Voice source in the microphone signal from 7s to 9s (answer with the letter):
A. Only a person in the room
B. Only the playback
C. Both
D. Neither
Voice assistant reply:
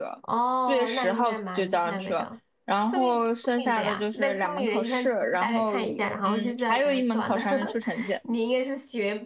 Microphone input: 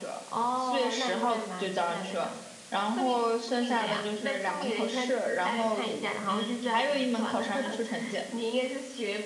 B